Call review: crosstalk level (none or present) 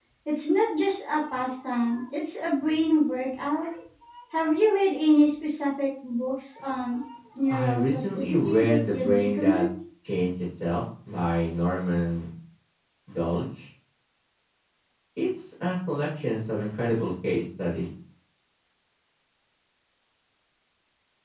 present